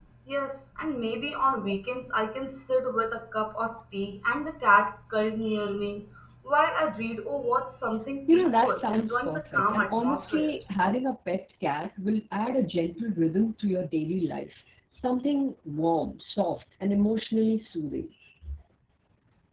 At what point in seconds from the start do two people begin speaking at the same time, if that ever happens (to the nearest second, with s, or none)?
8 s